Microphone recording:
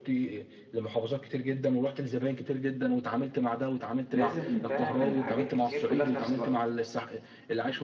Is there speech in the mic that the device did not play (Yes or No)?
Yes